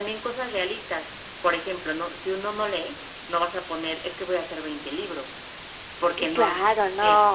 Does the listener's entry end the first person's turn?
Yes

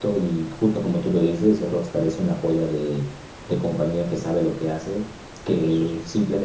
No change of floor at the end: Yes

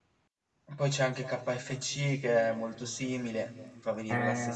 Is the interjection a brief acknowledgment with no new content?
No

